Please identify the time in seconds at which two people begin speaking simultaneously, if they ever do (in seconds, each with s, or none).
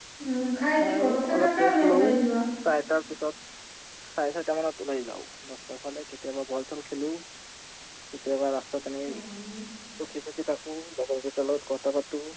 0.8 s